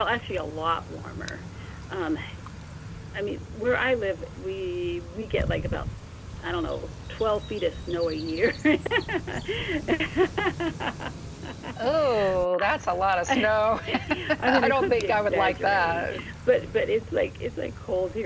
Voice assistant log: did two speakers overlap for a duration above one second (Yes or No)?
Yes